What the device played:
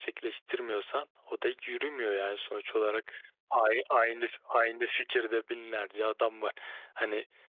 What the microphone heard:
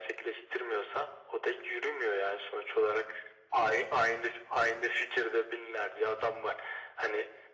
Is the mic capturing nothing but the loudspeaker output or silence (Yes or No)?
Yes